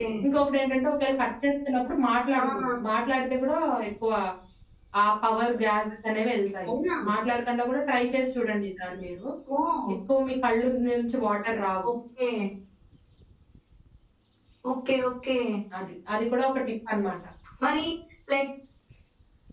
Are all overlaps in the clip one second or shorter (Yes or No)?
Yes